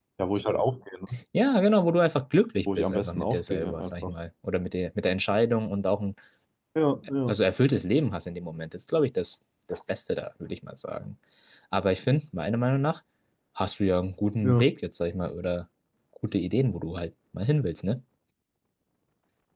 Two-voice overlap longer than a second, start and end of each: 2.8-4.2

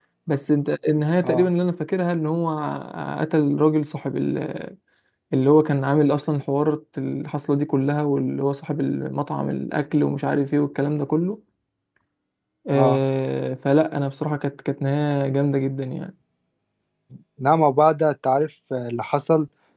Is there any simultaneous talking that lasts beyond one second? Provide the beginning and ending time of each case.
none

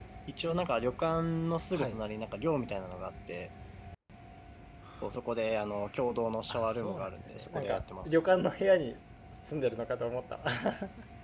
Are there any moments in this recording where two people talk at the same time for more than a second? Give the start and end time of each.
6.5-8.2

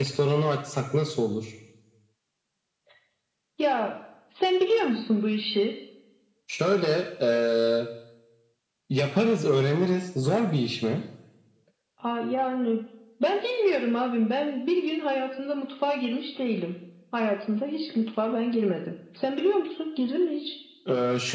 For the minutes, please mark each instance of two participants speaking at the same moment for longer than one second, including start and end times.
none

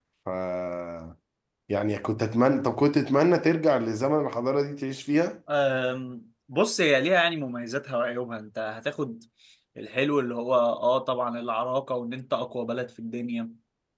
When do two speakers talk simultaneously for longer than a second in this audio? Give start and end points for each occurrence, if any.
none

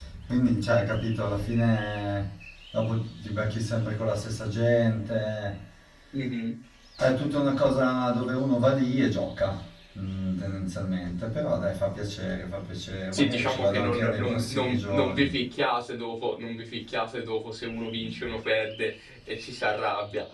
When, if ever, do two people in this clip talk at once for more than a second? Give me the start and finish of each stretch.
13.1-15.3

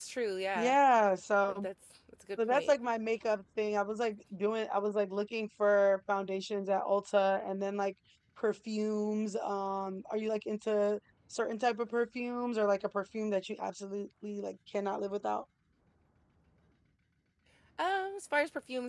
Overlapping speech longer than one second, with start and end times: none

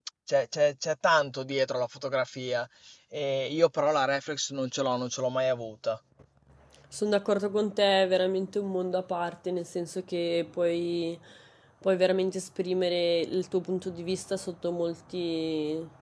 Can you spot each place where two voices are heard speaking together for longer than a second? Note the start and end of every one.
none

